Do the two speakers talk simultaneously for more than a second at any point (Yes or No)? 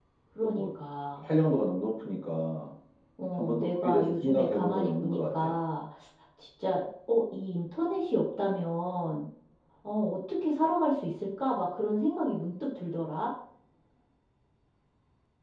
Yes